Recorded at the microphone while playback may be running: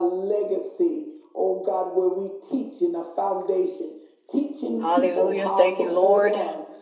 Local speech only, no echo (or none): Hallelujah. Thank you, Lord.